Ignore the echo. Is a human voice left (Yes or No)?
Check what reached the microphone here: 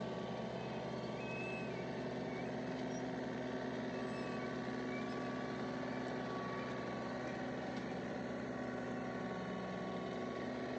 No